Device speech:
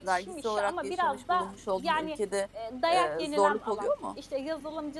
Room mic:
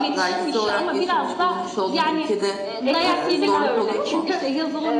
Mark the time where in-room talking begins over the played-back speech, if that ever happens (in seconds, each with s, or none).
2.8 s